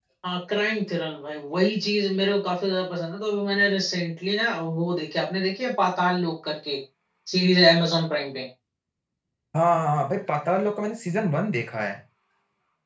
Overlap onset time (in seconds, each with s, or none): none